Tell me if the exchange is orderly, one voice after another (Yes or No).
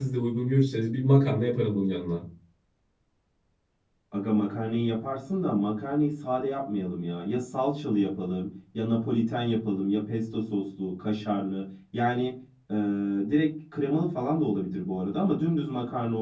Yes